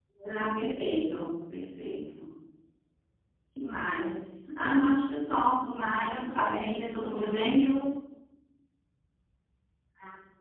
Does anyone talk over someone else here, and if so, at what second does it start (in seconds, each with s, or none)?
6.1 s